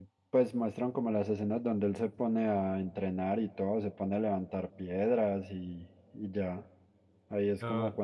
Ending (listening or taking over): listening